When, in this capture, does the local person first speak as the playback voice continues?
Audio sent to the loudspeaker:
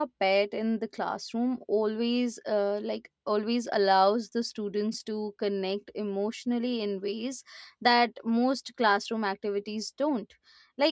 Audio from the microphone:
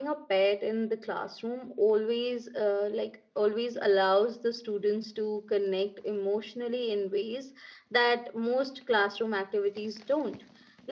none

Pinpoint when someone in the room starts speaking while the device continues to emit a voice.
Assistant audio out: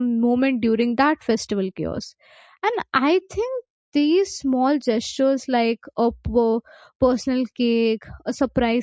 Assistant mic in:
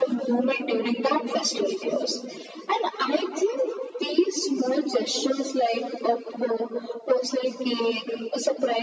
none

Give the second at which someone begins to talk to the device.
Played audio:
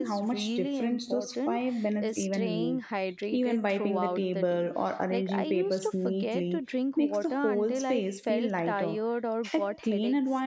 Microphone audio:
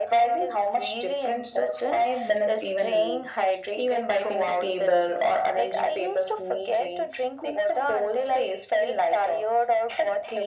none

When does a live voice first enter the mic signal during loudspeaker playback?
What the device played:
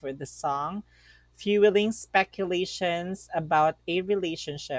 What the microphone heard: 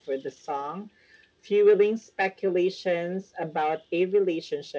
none

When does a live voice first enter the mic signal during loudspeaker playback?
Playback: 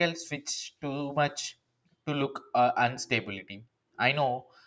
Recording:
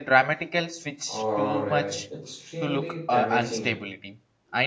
1.1 s

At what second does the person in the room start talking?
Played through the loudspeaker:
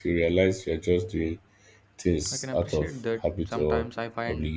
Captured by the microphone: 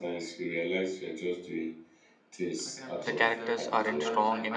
3.0 s

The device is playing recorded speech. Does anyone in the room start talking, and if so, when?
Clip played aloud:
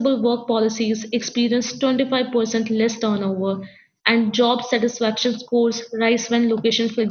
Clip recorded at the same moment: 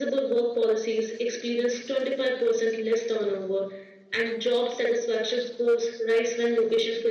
none

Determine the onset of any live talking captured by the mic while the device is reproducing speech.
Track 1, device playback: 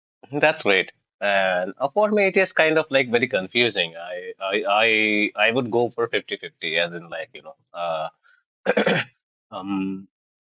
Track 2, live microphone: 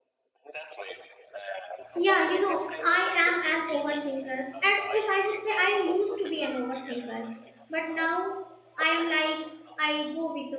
1.9 s

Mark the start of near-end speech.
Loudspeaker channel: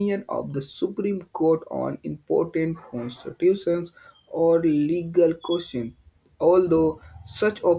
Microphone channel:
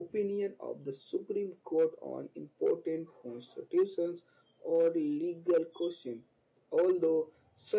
none

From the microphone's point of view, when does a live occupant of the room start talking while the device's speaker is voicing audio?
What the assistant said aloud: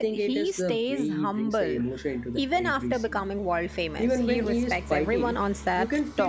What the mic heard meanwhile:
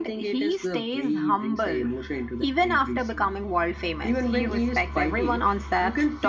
none

